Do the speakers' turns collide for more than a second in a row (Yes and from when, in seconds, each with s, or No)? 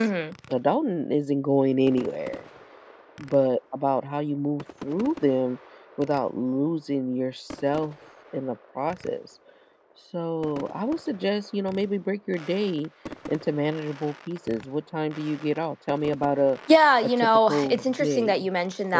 Yes, from 17.0 s